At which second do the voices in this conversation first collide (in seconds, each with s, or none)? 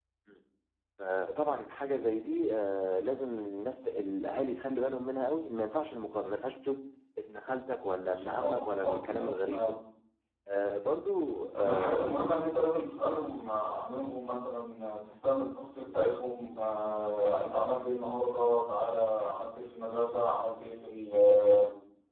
8.1 s